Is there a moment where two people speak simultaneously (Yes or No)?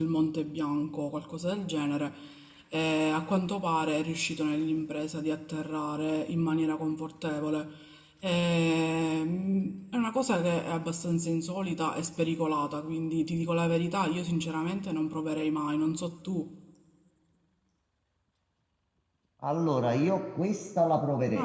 No